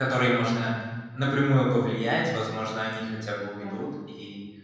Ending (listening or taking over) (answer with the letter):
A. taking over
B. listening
B